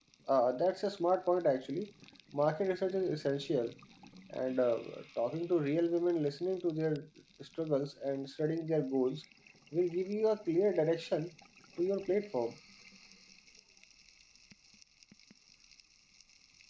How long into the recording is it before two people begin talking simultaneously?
none

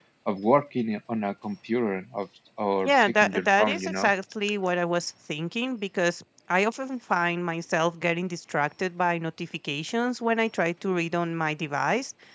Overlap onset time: 2.8 s

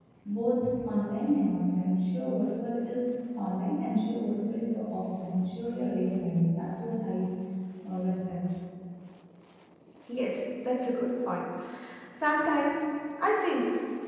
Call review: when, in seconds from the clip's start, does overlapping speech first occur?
none

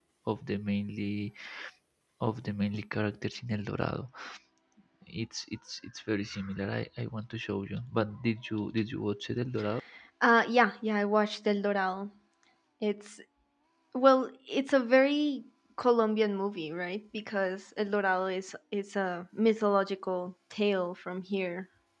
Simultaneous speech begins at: none

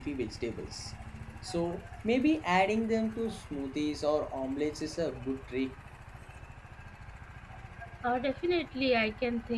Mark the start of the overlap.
none

